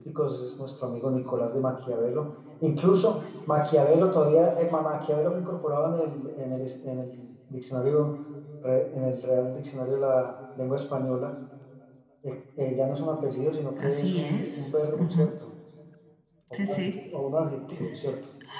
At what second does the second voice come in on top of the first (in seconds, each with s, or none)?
13.8 s